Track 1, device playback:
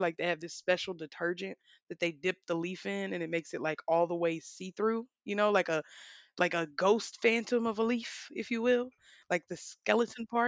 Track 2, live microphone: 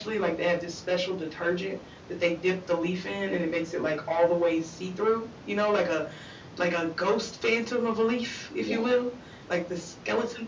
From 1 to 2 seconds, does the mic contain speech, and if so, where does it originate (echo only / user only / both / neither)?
echo only